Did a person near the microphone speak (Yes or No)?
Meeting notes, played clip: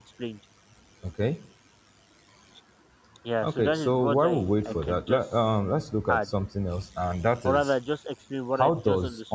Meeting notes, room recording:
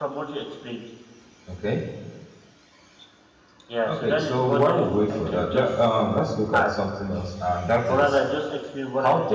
No